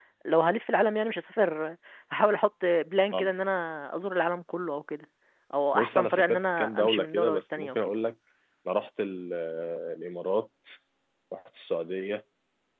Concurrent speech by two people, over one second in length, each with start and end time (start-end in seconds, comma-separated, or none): 5.7-7.9